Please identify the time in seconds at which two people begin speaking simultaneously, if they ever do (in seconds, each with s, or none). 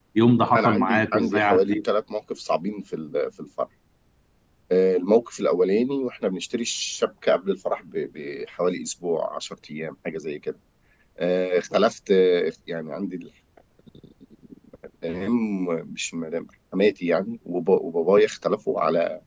0.6 s